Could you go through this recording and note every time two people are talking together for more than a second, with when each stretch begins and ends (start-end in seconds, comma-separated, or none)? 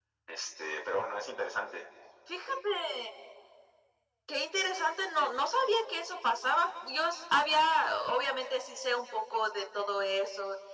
none